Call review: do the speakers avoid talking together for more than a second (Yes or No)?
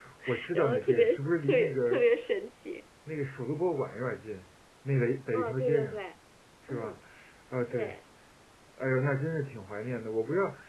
No